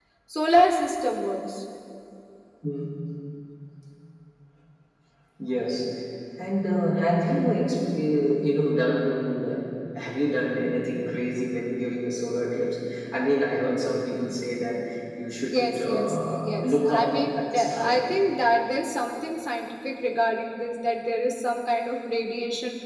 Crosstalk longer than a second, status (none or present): present